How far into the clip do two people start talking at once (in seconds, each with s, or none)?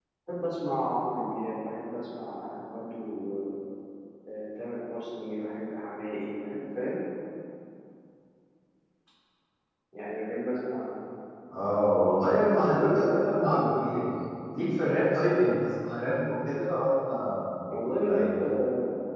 12.6 s